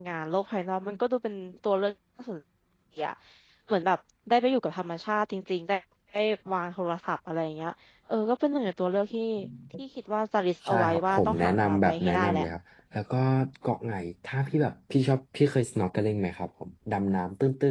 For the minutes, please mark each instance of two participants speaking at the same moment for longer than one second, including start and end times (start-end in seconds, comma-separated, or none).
10.7-12.4